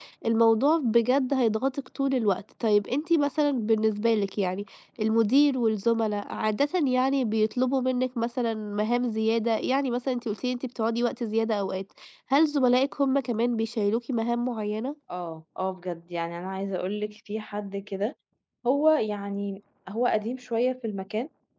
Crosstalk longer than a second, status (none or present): none